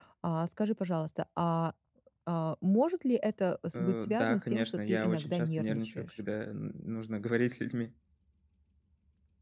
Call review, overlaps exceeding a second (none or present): present